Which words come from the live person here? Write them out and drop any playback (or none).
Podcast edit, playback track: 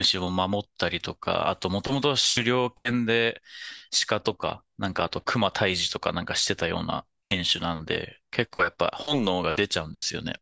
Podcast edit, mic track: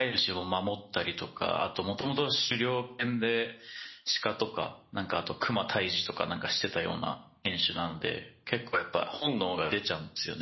none